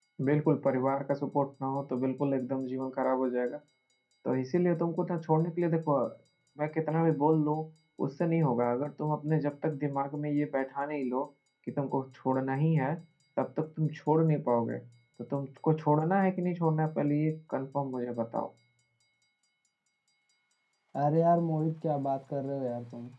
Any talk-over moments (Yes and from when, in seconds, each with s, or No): No